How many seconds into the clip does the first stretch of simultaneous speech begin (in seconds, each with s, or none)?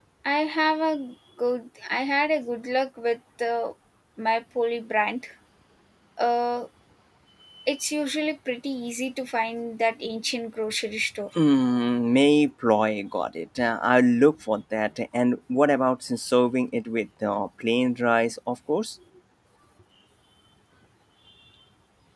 none